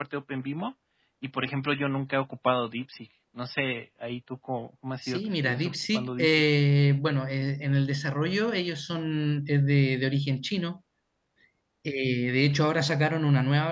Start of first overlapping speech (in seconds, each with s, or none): 5.0 s